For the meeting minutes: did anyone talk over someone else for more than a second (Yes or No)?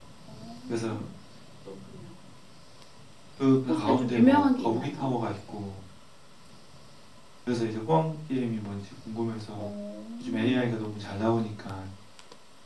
Yes